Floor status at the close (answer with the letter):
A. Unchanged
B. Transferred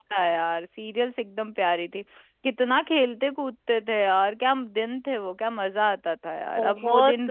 B